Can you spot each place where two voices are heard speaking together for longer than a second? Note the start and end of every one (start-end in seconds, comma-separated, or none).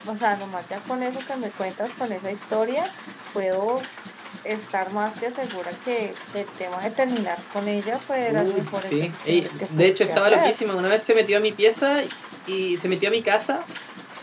8.2-10.5